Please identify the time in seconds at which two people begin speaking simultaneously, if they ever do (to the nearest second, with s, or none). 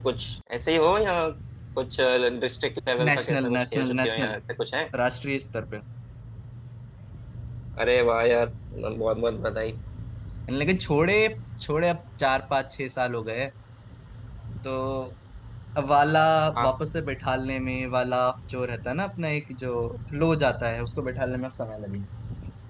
3 s